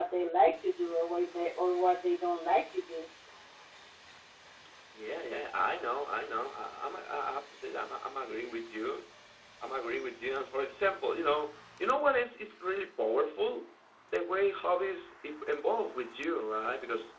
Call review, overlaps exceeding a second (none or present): none